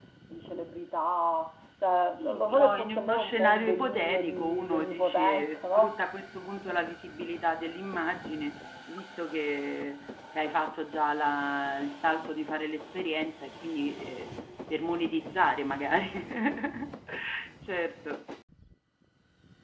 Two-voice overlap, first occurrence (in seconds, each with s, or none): 2.2 s